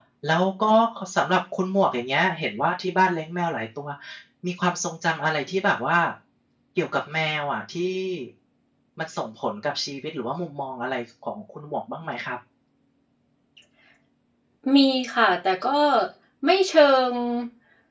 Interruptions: none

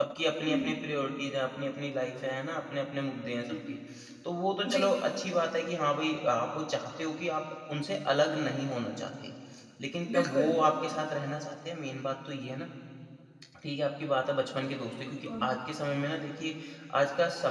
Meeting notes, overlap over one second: none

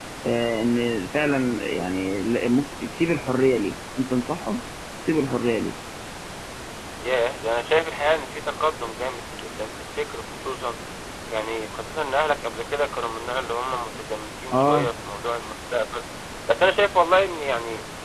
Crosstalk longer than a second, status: none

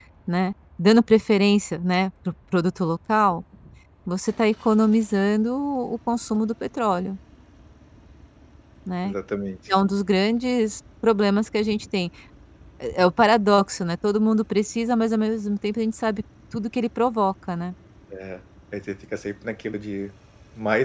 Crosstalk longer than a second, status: none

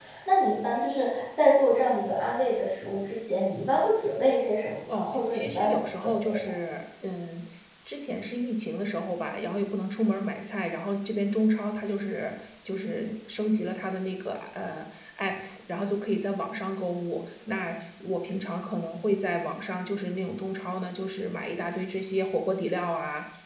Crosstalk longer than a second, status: present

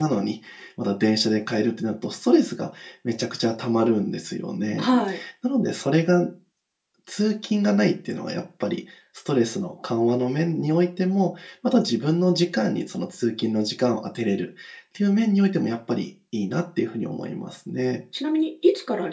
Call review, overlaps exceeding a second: none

